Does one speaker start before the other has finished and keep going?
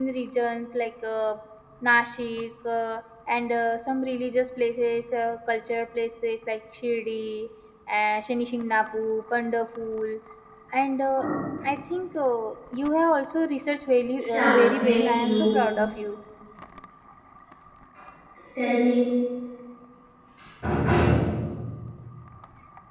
Yes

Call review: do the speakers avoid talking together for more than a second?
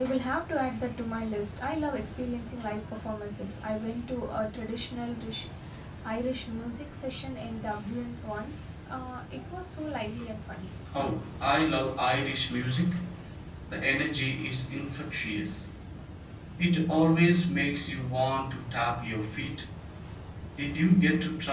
Yes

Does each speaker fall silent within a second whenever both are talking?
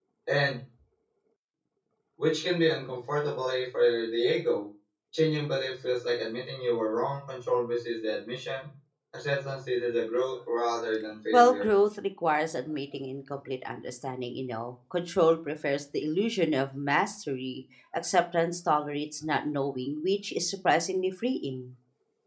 Yes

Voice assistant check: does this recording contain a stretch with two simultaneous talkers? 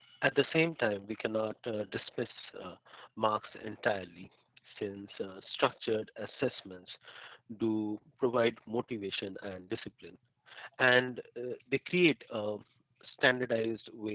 No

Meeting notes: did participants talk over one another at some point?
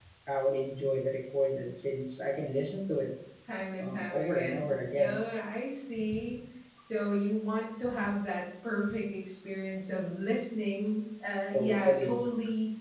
Yes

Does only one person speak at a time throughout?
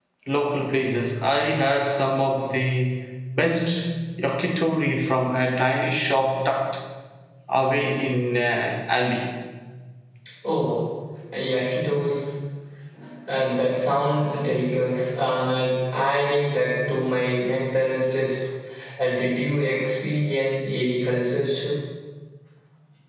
Yes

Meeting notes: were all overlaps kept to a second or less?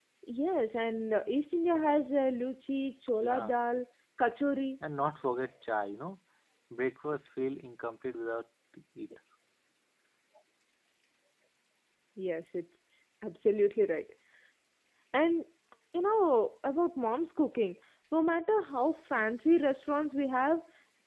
Yes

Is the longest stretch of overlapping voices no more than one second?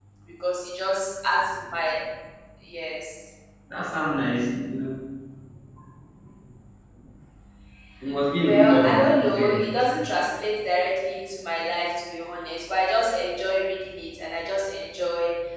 No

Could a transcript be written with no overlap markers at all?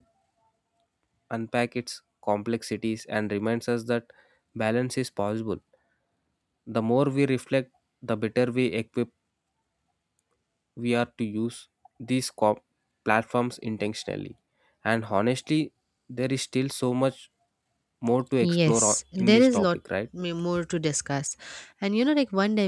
No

